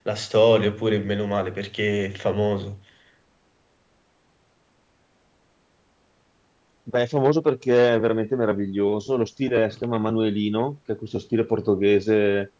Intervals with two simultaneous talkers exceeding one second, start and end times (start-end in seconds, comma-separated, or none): none